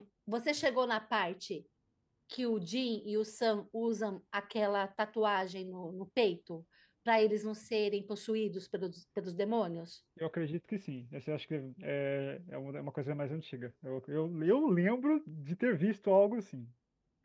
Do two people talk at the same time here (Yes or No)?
No